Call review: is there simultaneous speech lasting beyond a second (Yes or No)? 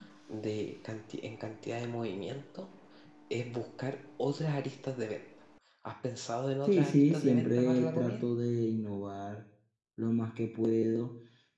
Yes